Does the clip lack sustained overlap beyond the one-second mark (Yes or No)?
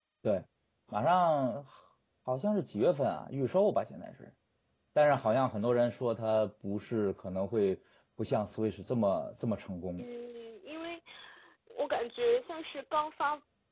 Yes